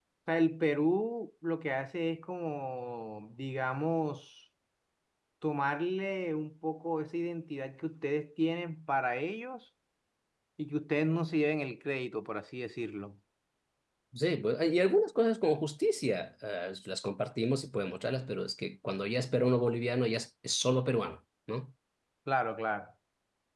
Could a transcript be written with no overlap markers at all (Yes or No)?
Yes